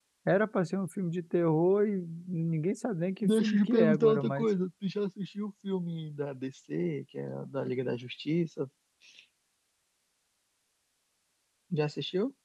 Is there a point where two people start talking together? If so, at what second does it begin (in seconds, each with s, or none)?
3.2 s